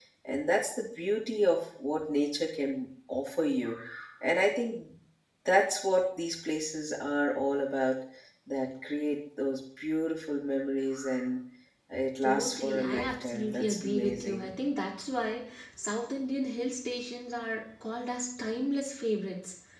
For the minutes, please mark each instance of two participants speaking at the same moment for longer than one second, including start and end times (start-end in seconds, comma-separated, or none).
12.3-14.5